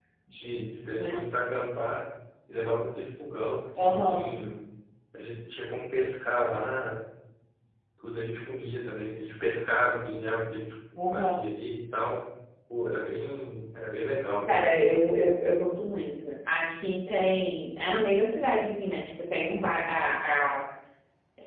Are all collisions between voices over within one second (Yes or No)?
Yes